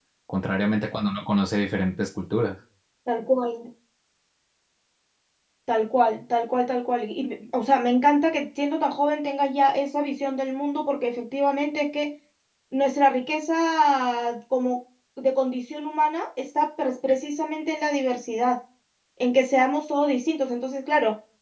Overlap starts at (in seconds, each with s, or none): none